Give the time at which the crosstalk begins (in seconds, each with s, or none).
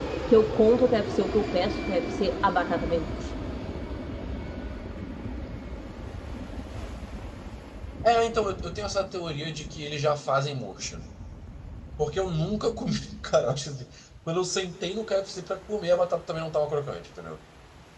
none